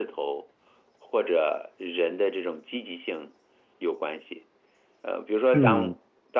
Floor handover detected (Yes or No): No